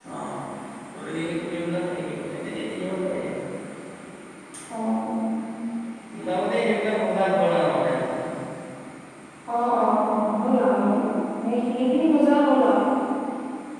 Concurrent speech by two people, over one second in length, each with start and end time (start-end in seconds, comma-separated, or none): none